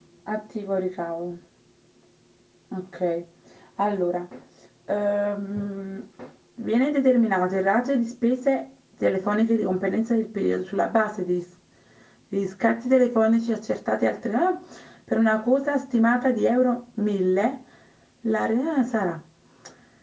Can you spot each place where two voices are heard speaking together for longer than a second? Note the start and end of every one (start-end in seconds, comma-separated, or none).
none